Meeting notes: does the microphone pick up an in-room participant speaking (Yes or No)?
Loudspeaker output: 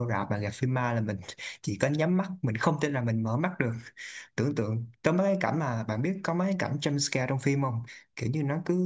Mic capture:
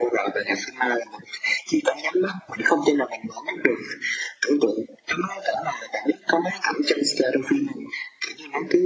No